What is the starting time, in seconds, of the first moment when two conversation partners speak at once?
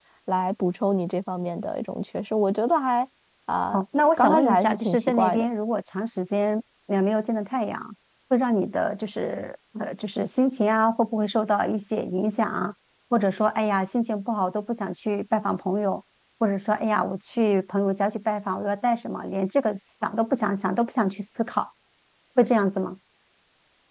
4.2 s

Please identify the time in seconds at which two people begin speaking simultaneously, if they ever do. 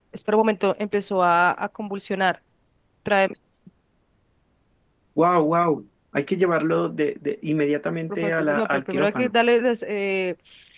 8.1 s

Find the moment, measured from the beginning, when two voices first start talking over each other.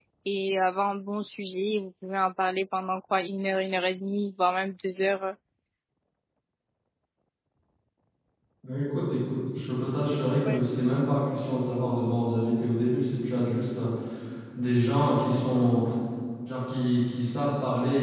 none

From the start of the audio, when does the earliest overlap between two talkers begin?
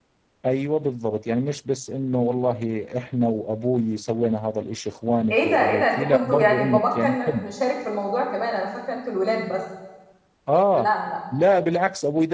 5.3 s

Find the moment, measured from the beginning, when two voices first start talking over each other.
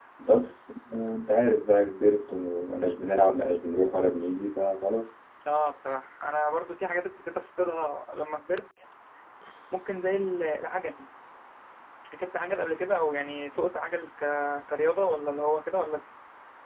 none

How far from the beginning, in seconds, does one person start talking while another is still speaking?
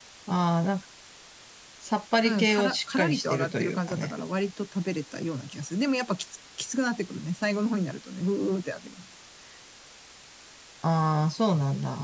2.2 s

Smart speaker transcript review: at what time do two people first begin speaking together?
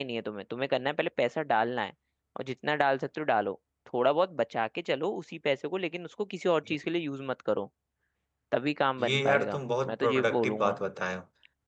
9.0 s

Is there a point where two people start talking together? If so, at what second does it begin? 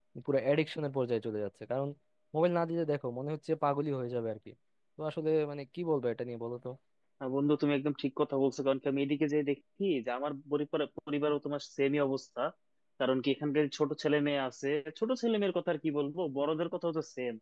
none

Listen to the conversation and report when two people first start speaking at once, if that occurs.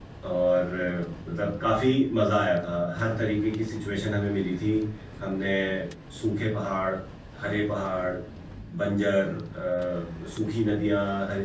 none

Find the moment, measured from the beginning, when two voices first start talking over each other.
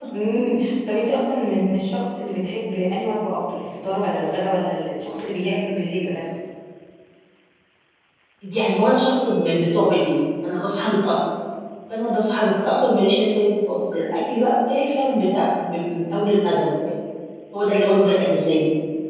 none

